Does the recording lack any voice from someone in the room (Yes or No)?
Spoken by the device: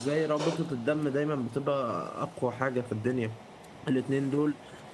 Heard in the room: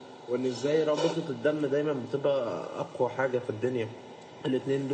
Yes